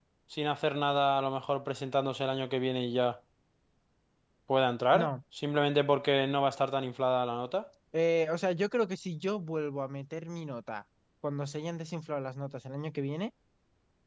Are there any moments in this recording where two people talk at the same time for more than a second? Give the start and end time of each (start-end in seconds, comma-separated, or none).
none